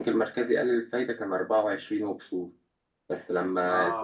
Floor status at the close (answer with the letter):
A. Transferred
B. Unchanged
B